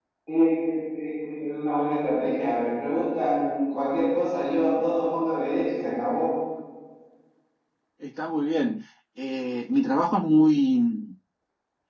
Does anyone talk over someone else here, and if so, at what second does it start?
none

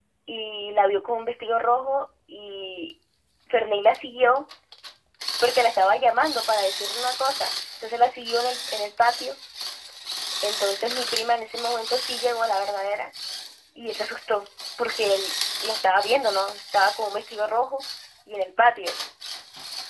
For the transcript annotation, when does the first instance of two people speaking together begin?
none

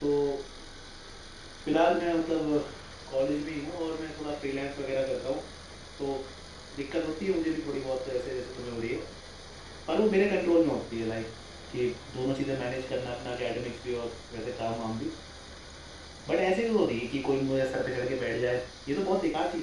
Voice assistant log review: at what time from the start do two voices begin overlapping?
none

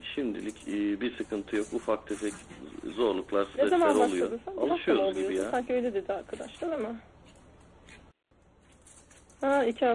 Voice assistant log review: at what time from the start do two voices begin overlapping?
3.5 s

